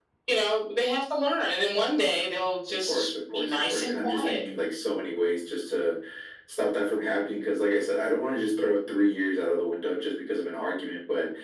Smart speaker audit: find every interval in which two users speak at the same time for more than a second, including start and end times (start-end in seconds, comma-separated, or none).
2.9-4.4